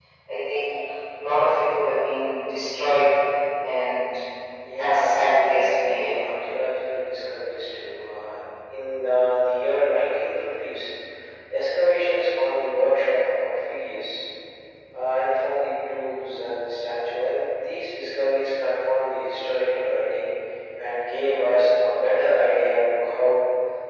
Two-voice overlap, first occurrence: 4.7 s

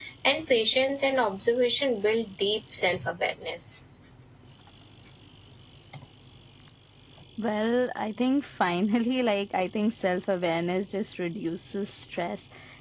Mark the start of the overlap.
none

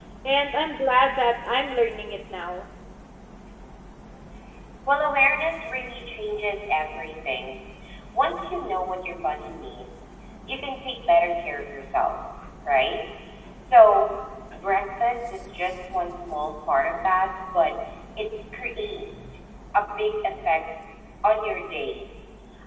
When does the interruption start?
none

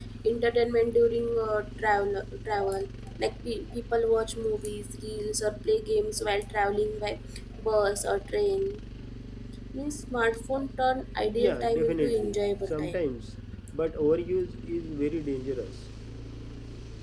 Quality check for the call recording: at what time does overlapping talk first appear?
11.3 s

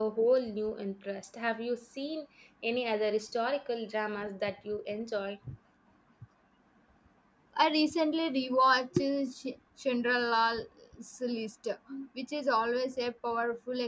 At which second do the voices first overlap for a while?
none

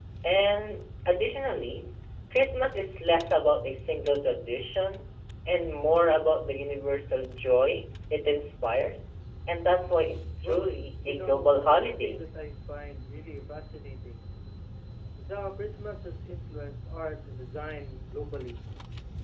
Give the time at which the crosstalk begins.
10.4 s

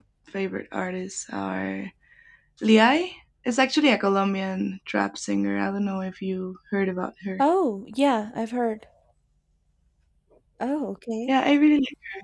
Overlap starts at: none

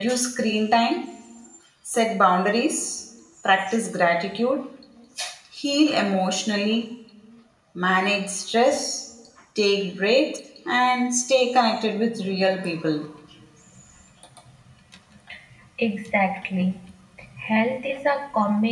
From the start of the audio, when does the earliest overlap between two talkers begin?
none

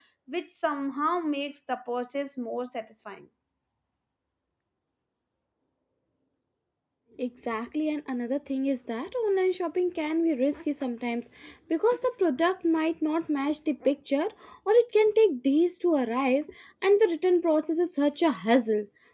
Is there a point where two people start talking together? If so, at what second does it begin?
none

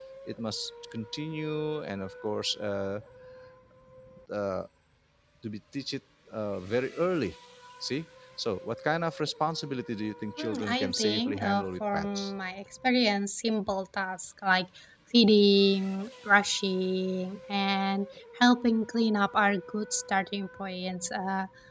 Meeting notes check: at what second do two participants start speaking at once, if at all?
10.4 s

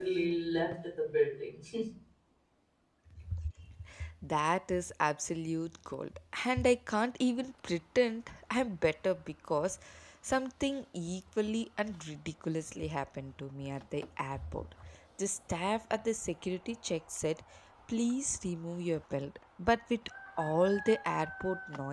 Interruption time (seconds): none

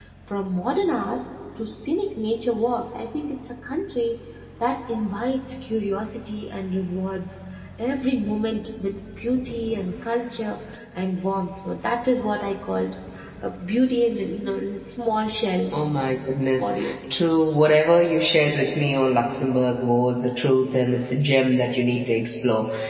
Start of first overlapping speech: none

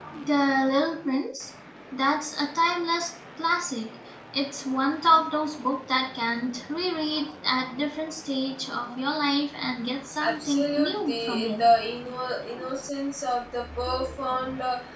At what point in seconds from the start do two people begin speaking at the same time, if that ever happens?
10.2 s

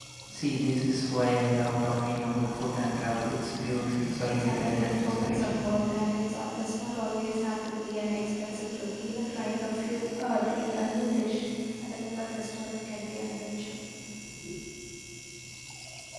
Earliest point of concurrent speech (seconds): 3.9 s

